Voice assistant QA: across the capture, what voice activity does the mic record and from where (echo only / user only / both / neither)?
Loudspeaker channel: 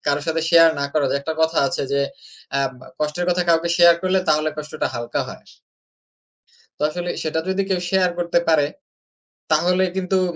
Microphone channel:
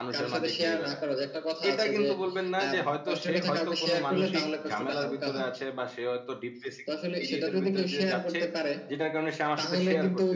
both